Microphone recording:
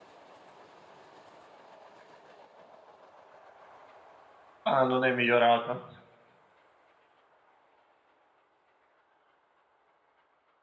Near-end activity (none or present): present